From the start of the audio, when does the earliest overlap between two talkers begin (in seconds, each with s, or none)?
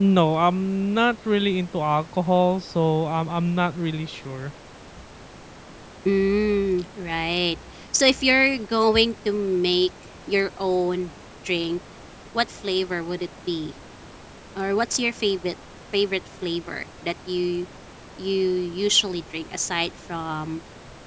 none